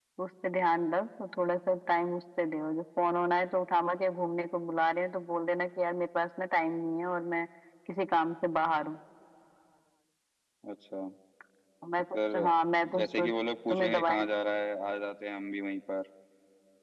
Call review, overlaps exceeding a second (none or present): none